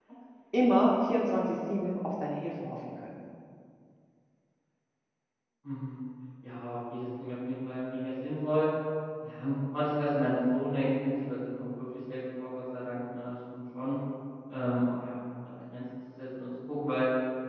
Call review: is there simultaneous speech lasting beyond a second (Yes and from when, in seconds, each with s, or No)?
No